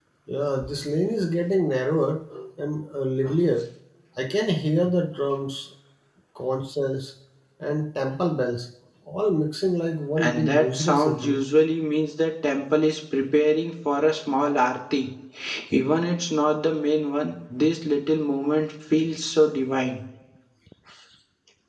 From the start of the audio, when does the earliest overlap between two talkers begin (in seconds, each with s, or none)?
10.2 s